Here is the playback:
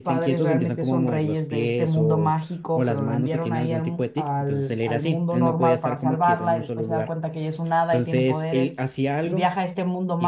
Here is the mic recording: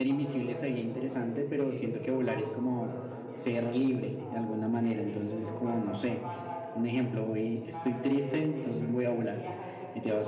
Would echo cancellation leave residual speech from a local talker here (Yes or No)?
Yes